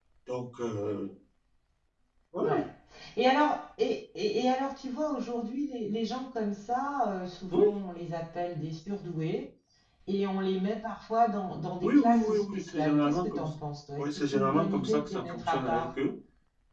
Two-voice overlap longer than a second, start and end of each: 11.8-13.5, 14.0-15.9

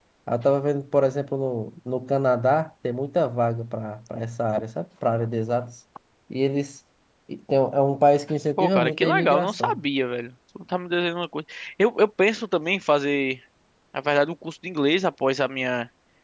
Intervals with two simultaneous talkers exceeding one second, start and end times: 8.6-9.8

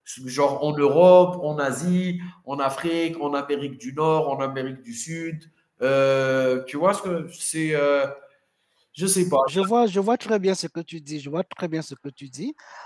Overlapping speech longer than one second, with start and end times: none

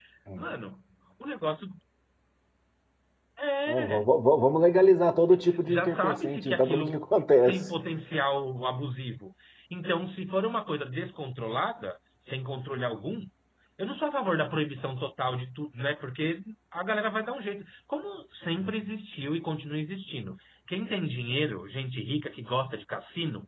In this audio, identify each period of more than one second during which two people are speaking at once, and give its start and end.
5.7-7.0

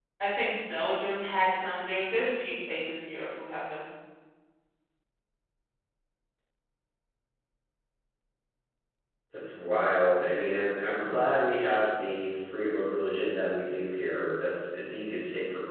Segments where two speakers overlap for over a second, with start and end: none

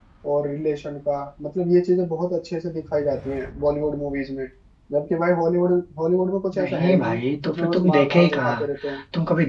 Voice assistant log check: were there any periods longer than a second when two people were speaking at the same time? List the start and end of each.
6.5-8.6

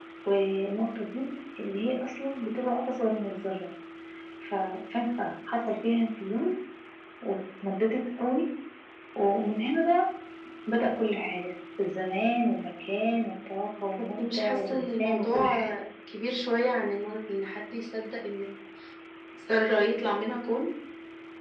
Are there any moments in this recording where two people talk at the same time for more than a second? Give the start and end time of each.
14.2-15.7

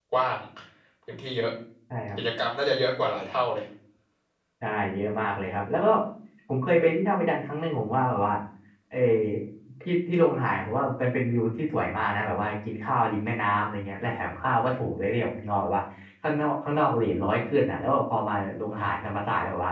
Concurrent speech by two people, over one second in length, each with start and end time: none

